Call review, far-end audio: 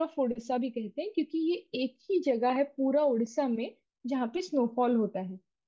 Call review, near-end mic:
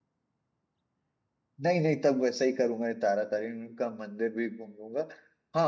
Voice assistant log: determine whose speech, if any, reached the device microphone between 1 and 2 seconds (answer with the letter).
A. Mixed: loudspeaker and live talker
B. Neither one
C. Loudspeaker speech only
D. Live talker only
D